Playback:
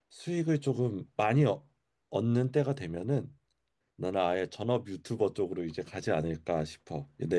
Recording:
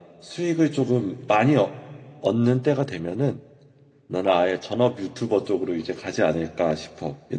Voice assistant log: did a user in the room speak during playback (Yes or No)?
No